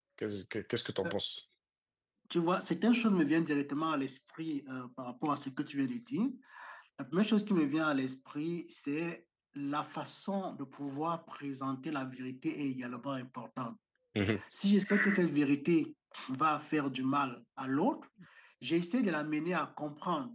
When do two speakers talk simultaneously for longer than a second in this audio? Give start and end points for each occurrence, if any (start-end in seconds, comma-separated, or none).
none